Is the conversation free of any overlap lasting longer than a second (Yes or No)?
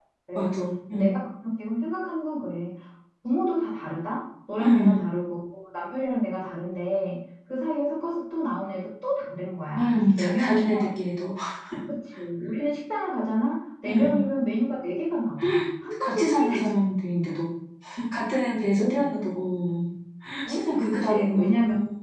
No